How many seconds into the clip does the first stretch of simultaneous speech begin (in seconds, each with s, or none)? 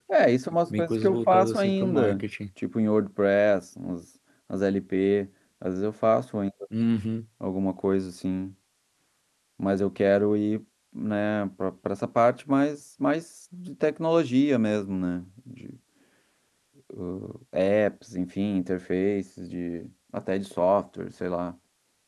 0.8 s